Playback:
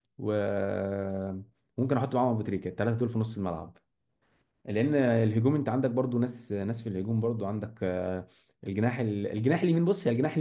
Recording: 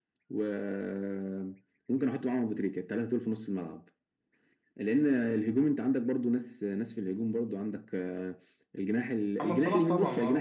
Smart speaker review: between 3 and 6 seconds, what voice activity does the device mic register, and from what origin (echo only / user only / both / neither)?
echo only